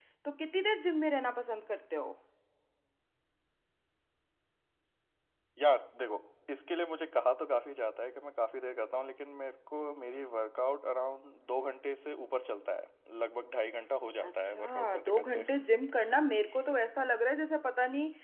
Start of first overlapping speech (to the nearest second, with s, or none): 14 s